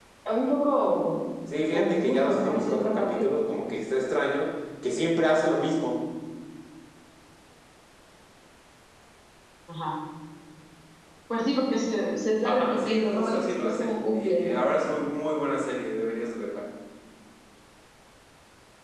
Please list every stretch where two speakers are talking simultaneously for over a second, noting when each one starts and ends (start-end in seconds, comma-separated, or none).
1.7-3.3, 12.4-14.6